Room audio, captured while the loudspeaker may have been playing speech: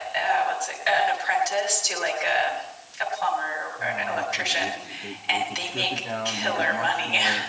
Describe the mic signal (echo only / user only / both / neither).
both